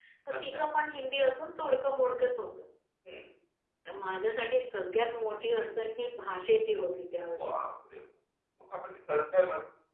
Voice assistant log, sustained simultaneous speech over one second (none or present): none